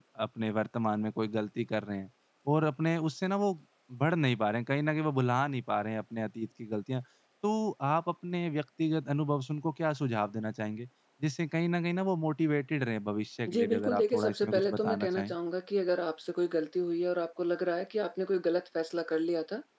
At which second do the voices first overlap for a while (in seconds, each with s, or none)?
13.5 s